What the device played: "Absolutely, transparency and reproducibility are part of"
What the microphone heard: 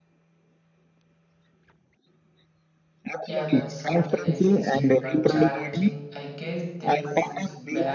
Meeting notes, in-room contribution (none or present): present